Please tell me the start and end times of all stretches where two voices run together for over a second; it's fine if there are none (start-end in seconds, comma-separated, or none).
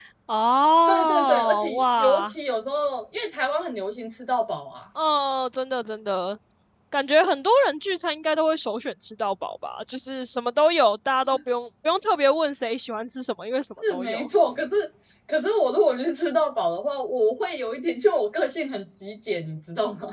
0.9-2.3